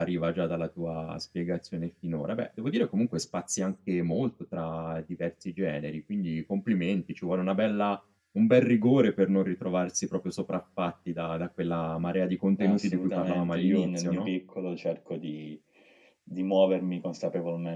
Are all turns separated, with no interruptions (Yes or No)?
No